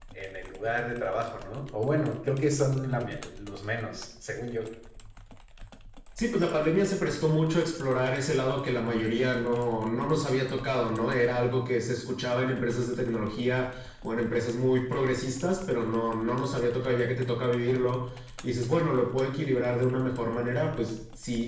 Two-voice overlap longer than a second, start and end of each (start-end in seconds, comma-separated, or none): none